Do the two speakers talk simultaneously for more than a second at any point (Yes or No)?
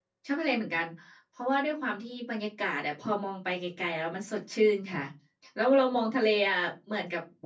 No